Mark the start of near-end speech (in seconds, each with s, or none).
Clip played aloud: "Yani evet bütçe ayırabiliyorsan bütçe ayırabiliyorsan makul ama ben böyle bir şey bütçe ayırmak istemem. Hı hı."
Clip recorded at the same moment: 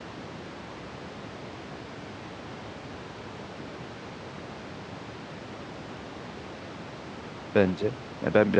7.5 s